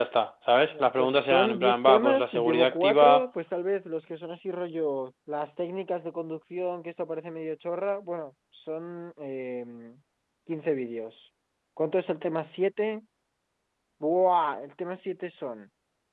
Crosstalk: present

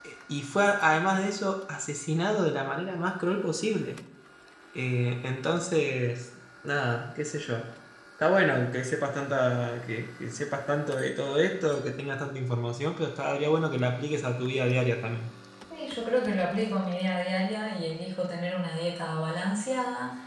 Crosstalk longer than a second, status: none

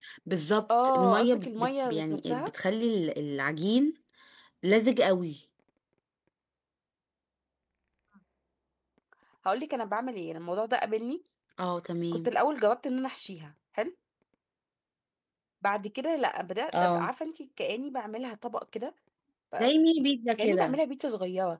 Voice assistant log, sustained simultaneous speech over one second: present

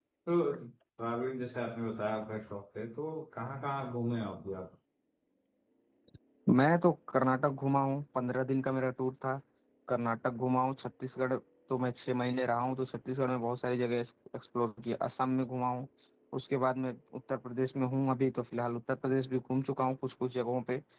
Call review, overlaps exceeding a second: none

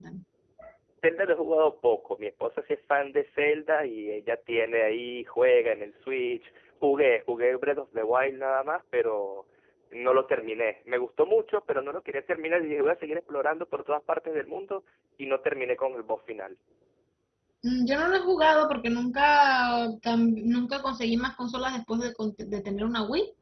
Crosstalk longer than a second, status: none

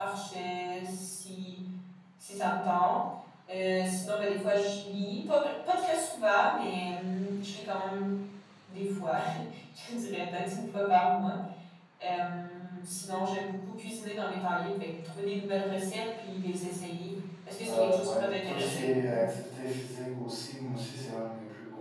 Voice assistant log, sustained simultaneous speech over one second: present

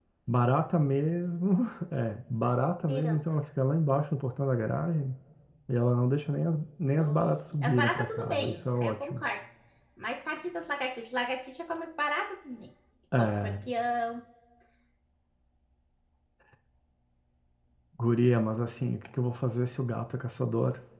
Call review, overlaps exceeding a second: present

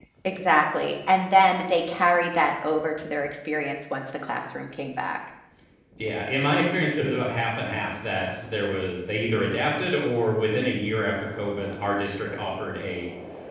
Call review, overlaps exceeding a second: none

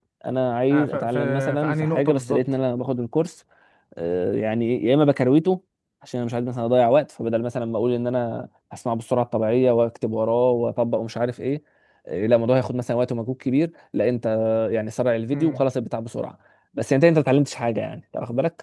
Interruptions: present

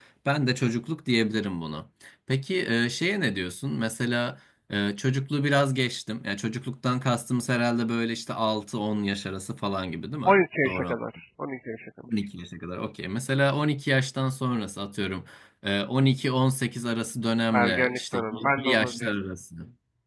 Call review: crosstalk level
present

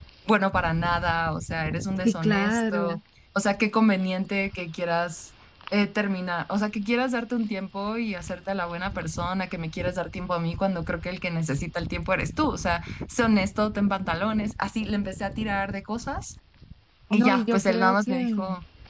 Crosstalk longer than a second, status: present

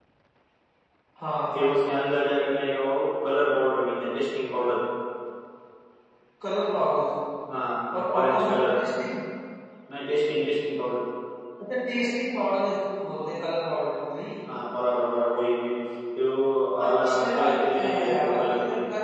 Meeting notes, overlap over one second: present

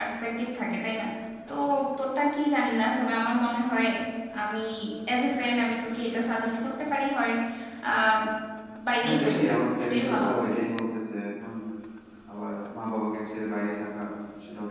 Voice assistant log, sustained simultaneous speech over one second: present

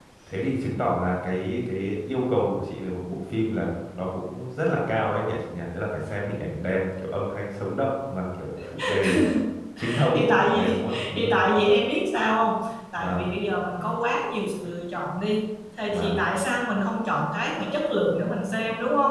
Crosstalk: present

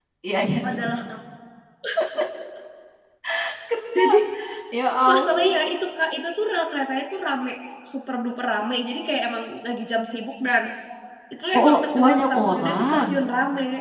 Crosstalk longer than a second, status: present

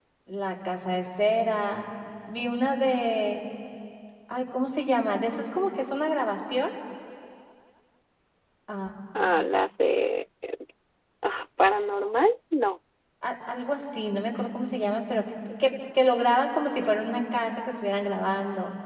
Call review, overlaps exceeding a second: none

